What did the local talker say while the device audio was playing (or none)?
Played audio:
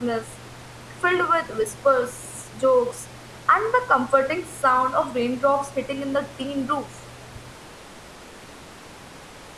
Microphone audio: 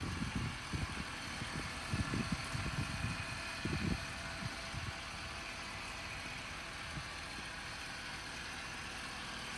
none